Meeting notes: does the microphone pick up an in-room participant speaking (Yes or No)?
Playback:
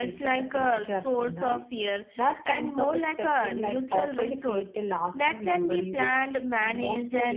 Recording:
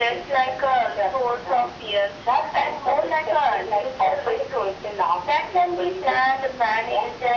No